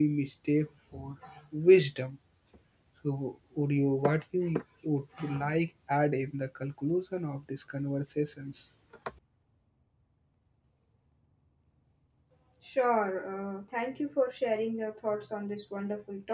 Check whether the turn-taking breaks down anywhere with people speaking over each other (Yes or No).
No